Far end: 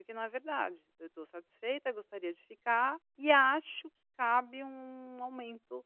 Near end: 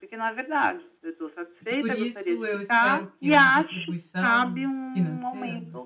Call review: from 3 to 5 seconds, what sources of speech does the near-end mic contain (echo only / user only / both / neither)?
both